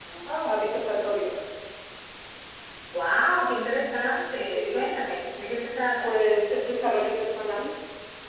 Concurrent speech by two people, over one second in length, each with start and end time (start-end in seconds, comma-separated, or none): none